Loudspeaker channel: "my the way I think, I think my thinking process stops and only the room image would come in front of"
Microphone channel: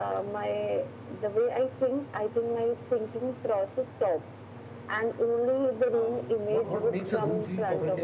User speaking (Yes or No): Yes